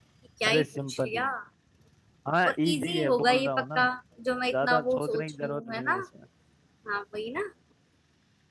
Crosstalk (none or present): present